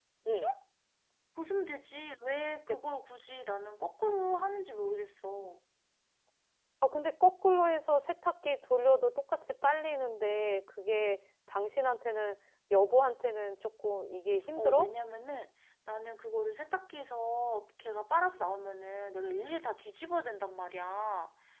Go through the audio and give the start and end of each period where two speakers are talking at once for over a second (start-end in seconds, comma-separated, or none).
none